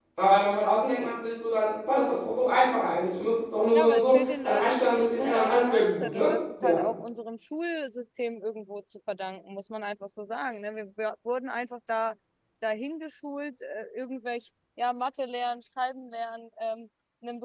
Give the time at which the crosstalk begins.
3.7 s

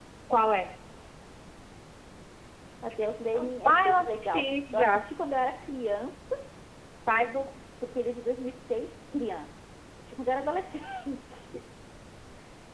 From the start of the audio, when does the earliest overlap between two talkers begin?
3.6 s

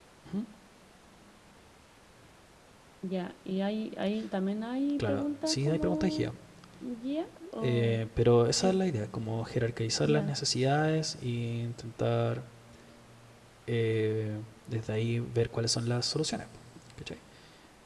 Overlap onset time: 5.0 s

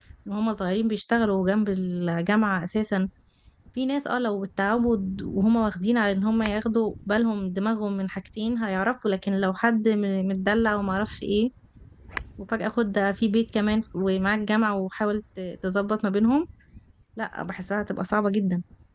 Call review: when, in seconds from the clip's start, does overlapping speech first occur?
none

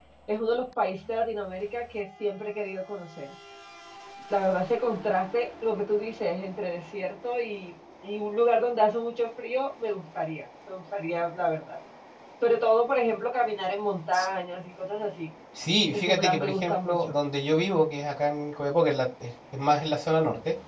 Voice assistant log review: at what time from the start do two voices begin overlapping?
15.9 s

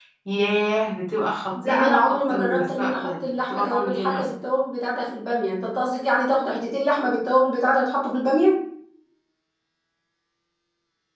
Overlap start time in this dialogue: 1.5 s

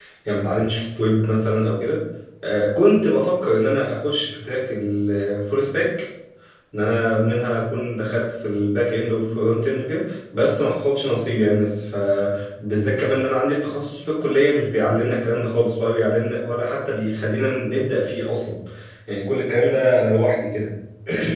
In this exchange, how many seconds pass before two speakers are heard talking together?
none

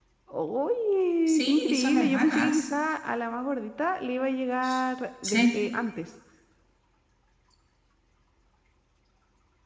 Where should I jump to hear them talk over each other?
1.3 s

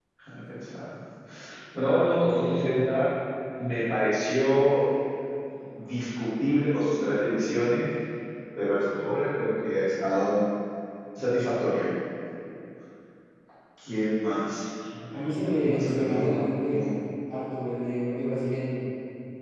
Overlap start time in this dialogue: 15.1 s

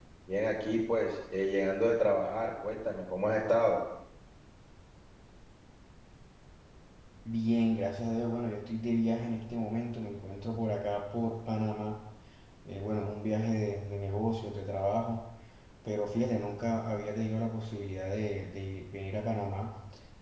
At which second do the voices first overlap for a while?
none

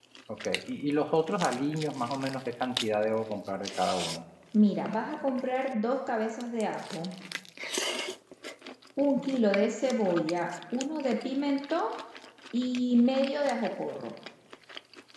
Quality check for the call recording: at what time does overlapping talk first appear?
none

